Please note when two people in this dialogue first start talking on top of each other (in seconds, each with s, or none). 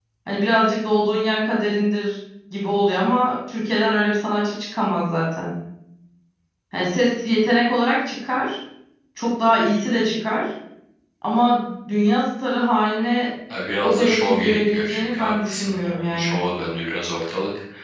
13.8 s